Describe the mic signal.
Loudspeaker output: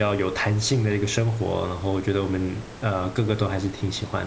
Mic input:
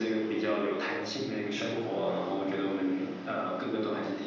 echo only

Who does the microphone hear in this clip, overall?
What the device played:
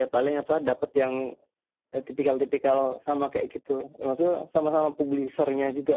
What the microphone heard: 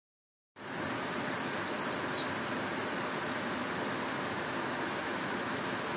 neither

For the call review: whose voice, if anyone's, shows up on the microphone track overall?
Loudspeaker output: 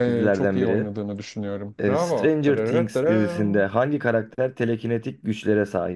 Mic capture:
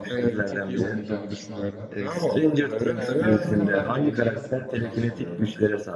both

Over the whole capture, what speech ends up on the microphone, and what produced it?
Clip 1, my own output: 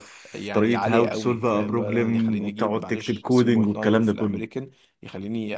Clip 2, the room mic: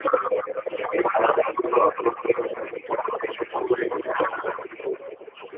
echo only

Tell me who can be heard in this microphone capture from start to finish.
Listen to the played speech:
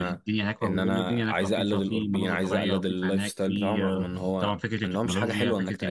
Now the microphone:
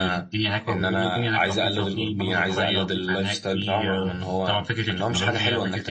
echo only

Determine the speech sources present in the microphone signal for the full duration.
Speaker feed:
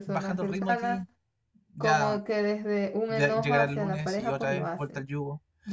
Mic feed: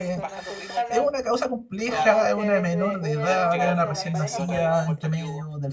both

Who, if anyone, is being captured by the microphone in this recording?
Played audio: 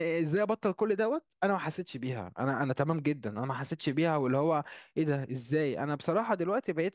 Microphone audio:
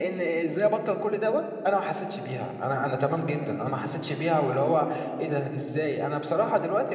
echo only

